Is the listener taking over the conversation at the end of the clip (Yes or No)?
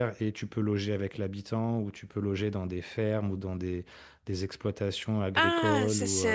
Yes